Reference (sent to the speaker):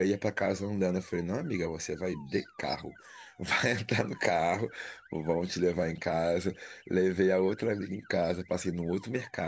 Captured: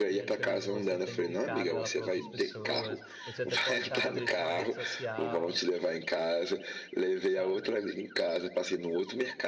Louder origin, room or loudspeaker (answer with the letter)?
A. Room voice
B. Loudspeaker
B